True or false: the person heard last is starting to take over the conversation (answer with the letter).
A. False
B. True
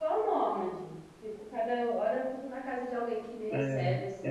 B